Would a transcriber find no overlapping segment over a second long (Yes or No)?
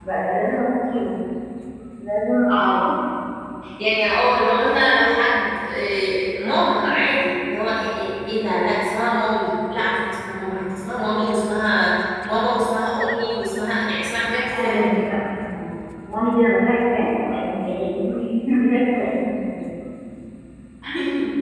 Yes